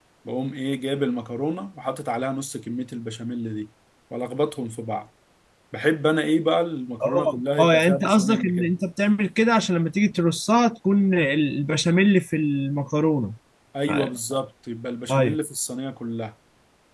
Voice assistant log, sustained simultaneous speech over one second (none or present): present